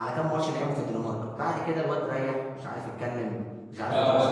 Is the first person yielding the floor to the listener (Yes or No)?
Yes